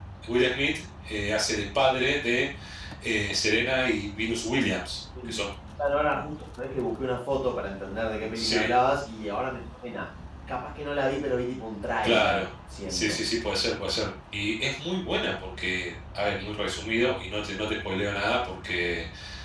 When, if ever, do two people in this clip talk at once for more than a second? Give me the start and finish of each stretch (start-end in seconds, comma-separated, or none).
none